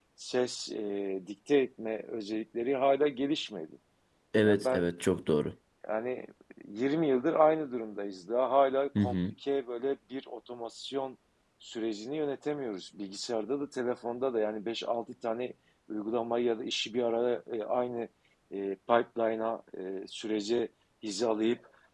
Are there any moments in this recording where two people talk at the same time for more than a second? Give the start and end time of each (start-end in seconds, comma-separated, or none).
none